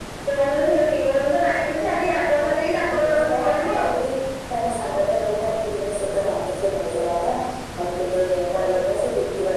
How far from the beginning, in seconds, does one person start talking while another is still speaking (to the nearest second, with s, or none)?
2 s